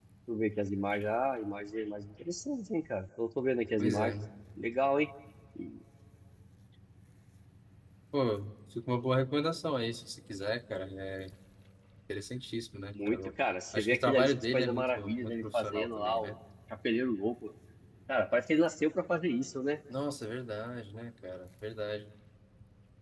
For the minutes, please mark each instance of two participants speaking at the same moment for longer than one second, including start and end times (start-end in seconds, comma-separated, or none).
13.7-16.3